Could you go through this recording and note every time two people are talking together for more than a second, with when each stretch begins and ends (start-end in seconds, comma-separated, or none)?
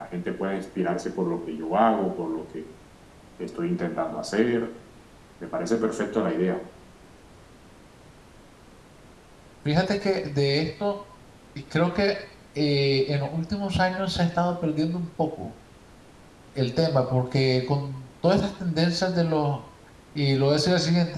none